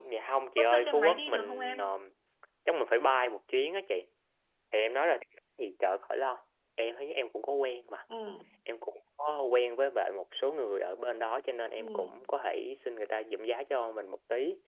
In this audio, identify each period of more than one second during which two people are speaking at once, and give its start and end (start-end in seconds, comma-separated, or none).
0.6-1.9